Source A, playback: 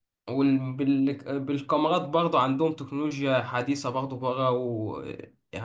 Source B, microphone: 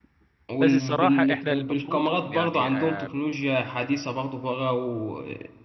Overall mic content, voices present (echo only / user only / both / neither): both